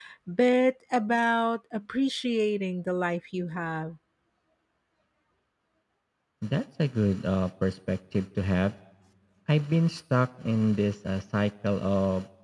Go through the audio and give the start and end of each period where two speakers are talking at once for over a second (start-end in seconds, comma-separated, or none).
none